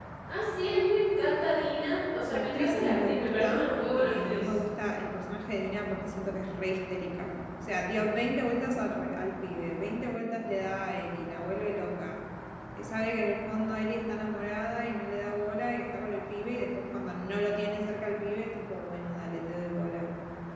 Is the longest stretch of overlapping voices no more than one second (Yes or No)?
No